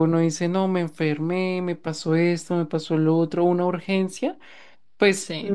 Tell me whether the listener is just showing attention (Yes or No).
Yes